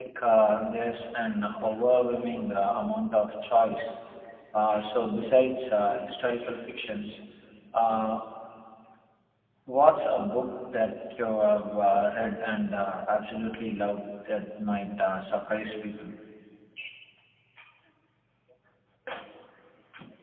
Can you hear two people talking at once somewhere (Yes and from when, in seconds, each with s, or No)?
No